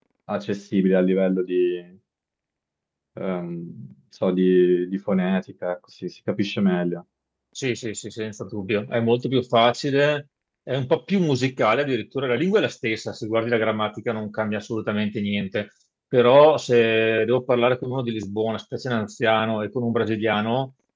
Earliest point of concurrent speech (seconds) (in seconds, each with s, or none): none